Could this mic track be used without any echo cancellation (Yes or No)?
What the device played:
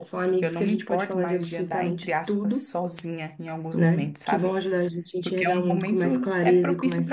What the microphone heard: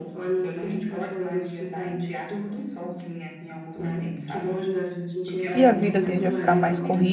No